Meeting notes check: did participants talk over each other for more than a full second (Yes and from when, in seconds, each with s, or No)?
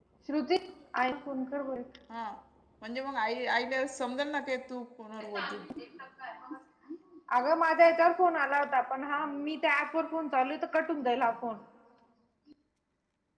No